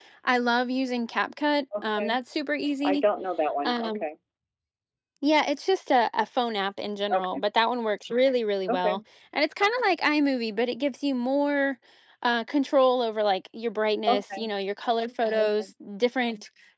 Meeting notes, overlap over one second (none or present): none